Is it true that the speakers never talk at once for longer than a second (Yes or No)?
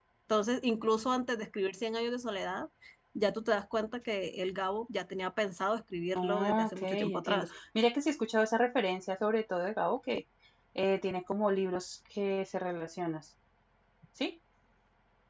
No